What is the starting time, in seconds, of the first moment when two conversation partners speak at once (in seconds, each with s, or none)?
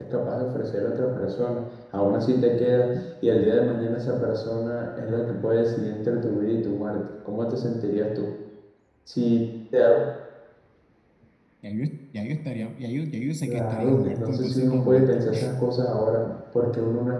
13.5 s